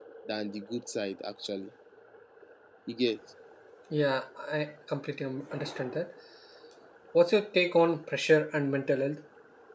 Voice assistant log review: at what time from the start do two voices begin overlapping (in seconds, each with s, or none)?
none